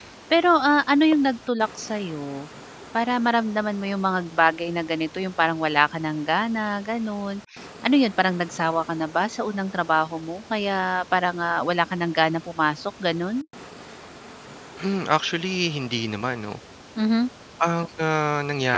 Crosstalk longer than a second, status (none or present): none